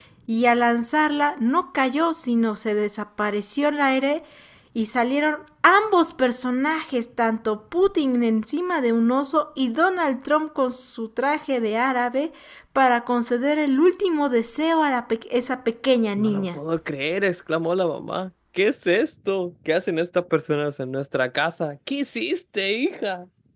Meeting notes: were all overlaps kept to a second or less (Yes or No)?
Yes